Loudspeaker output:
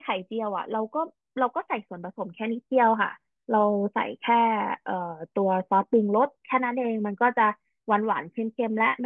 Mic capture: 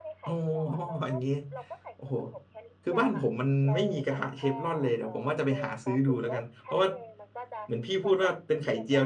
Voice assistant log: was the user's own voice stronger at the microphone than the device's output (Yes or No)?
Yes